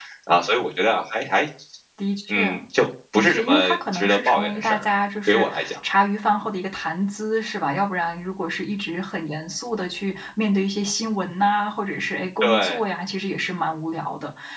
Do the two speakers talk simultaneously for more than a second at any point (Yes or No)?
Yes